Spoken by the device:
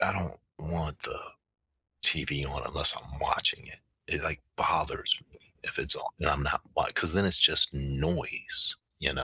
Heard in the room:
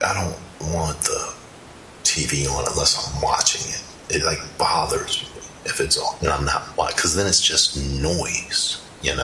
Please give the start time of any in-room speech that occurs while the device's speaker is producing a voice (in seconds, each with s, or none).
none